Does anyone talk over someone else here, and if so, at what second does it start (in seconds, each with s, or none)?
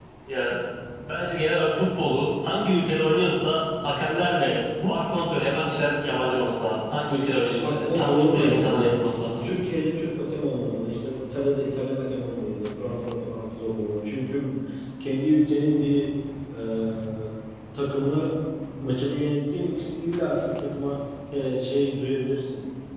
7.6 s